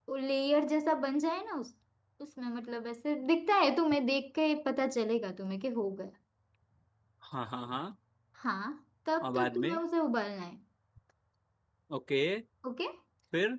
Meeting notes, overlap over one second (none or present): none